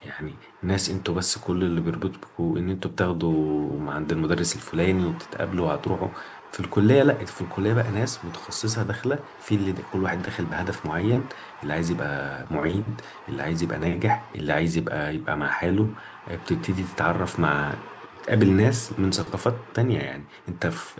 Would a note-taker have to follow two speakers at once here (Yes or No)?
No